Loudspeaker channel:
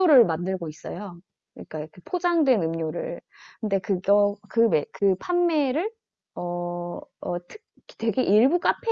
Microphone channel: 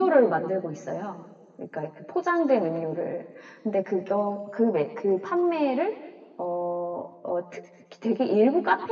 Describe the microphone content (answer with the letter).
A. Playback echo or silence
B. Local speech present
A